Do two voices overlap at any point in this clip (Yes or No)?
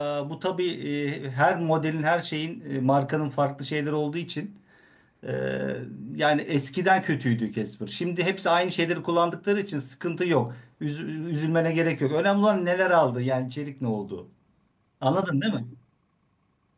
No